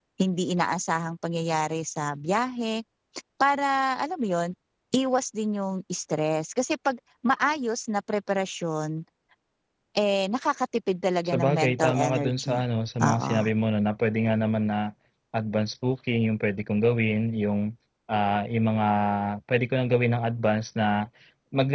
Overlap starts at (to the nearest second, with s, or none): 11 s